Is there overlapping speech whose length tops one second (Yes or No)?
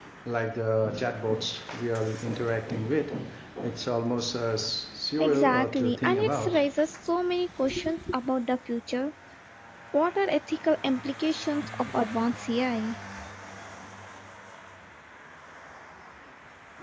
Yes